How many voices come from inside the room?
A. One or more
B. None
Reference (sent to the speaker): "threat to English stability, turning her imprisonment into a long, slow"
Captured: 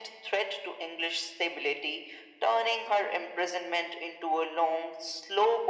B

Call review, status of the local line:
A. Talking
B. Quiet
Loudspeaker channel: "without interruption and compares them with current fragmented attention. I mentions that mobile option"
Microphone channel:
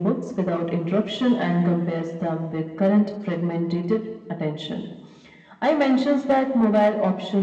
B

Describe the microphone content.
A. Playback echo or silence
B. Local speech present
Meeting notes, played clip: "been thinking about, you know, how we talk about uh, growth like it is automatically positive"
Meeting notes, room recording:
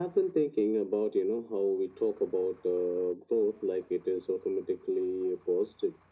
A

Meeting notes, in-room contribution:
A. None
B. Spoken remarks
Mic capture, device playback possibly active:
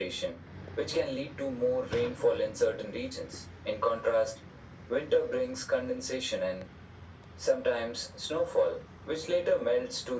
A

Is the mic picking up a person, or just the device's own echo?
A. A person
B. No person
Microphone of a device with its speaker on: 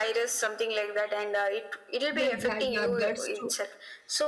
A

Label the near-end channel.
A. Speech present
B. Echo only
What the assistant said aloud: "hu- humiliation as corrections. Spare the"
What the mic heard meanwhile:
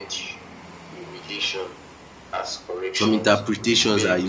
A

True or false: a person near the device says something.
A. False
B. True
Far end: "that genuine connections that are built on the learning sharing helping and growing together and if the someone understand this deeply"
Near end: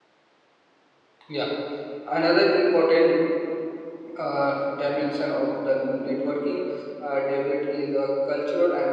B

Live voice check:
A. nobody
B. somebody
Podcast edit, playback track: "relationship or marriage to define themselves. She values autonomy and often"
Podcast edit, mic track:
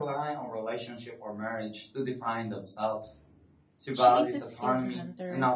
B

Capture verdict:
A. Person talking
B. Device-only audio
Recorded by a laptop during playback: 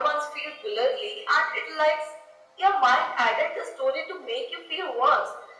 B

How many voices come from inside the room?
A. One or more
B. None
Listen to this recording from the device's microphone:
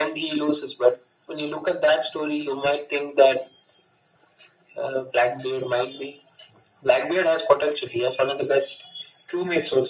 B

